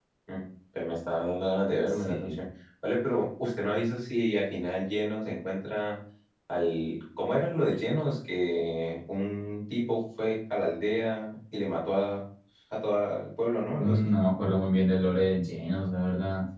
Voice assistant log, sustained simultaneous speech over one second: none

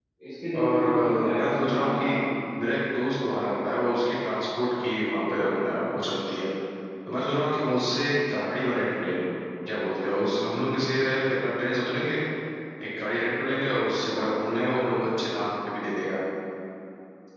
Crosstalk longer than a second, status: present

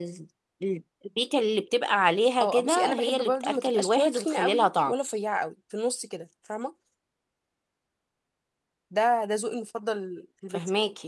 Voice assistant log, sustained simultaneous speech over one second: present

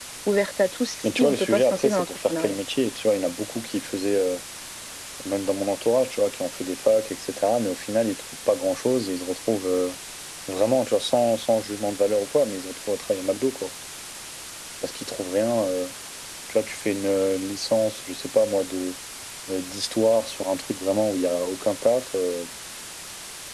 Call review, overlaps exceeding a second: present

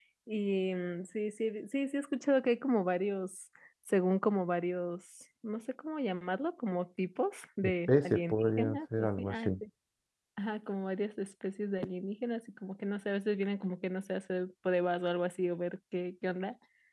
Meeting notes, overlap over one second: present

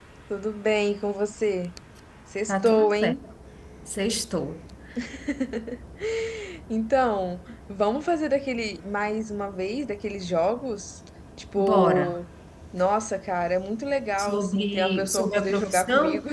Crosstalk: present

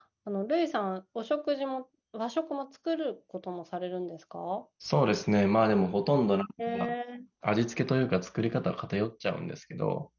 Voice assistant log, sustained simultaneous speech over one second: none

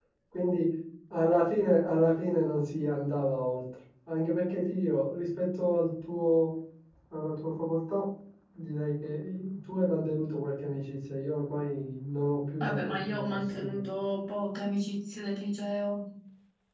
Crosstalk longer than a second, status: present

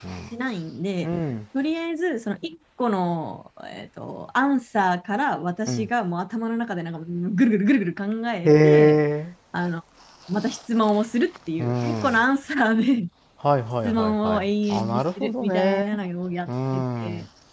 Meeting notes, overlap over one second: present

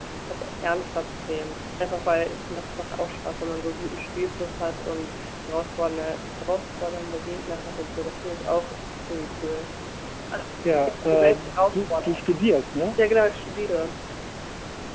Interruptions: present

